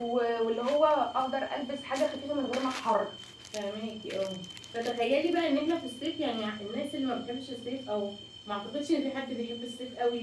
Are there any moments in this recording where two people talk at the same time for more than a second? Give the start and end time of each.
none

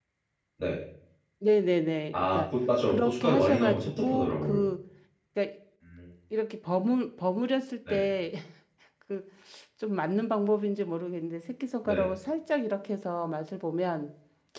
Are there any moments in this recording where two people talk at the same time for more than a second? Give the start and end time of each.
2.9-4.6

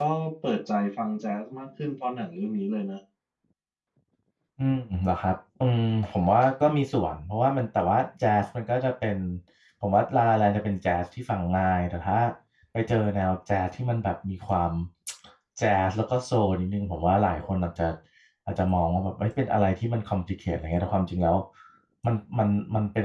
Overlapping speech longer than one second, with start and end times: none

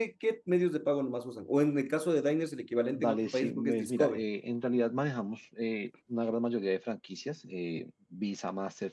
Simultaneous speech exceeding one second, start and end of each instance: 3.0-4.2

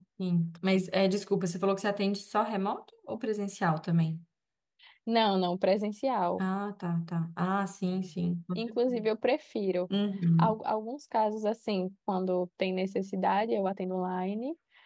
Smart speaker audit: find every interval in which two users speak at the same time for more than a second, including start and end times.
none

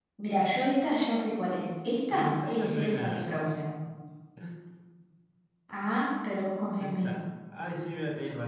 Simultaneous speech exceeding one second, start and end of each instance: 2.1-3.4

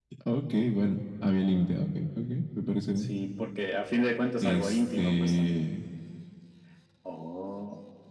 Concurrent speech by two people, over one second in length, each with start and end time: 4.4-5.7

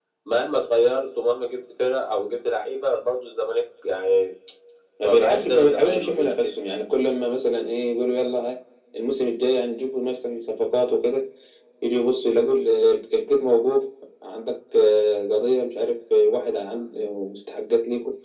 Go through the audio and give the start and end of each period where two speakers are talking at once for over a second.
5.0-6.7

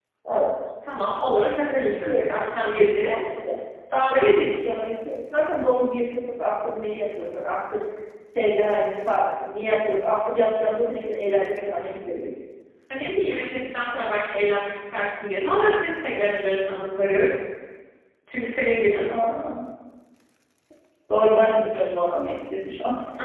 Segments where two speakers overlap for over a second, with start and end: none

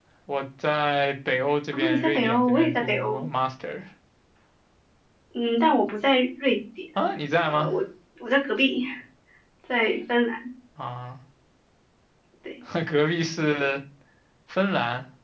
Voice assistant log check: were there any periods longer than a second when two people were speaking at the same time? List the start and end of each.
1.7-3.3

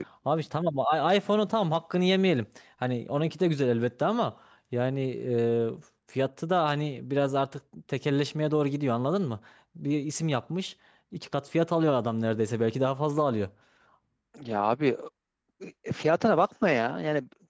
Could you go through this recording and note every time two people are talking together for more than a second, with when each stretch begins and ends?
none

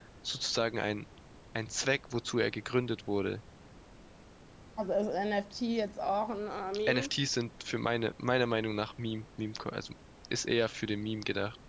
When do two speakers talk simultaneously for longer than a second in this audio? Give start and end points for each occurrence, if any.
none

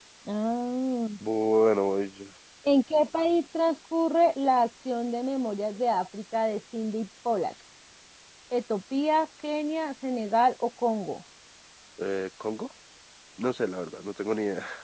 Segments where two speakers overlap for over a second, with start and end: none

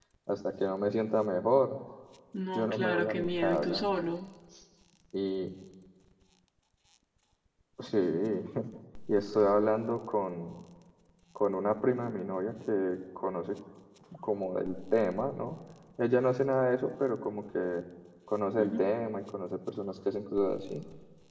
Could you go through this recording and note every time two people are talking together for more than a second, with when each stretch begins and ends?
2.5-3.9

